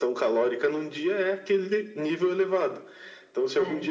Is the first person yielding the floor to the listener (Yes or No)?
No